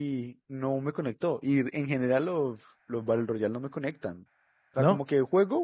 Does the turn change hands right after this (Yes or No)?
No